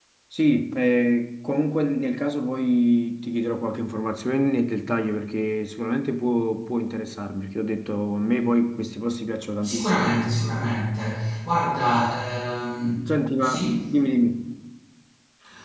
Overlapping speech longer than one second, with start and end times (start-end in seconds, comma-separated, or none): none